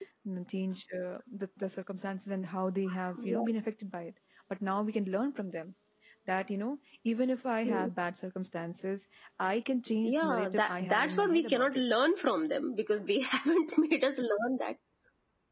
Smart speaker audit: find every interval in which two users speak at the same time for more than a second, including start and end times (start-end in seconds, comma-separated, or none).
10.0-11.8